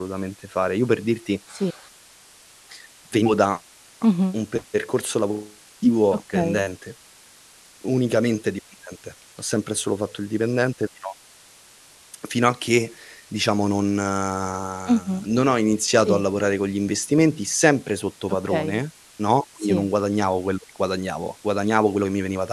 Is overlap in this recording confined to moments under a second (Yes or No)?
Yes